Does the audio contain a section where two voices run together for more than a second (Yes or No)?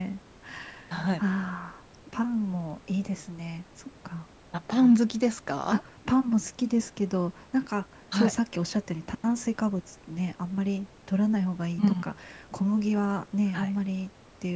No